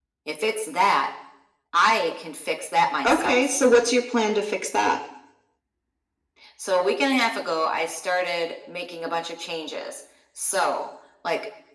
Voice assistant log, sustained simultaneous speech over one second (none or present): none